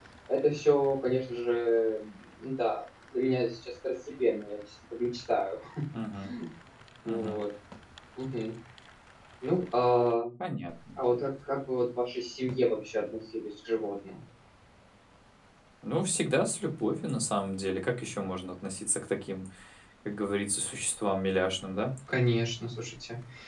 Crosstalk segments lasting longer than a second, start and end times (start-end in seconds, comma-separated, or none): none